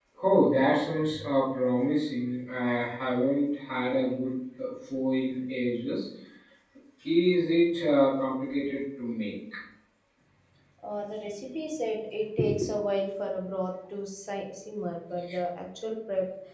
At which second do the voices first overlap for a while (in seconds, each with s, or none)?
none